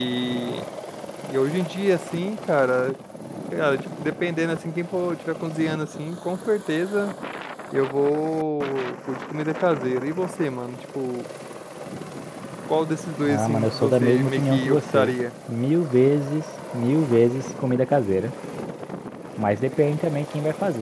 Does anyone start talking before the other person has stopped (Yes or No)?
Yes